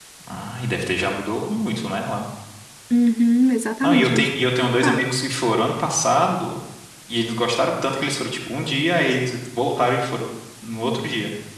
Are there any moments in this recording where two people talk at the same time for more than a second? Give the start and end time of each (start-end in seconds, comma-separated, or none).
3.8-5.1